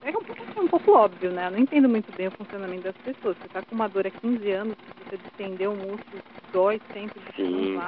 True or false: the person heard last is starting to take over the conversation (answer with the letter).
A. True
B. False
A